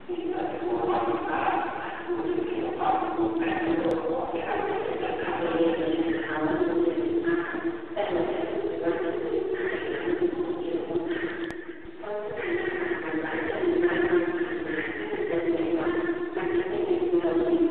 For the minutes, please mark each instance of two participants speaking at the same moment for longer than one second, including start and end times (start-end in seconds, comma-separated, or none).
3.7-5.7